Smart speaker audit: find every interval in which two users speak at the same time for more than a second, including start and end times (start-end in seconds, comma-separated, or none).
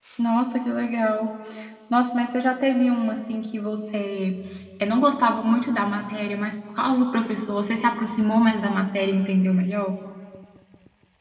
none